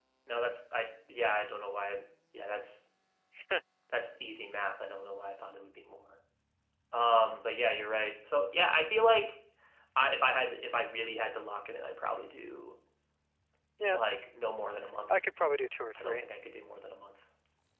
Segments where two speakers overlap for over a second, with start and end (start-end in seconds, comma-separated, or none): none